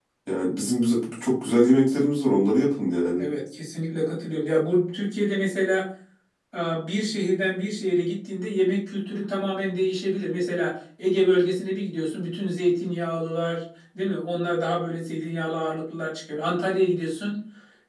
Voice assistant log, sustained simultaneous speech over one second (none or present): none